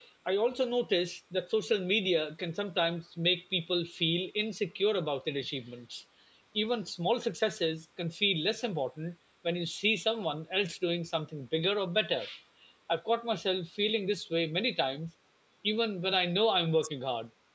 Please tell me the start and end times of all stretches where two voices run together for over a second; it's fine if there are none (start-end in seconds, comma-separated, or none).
none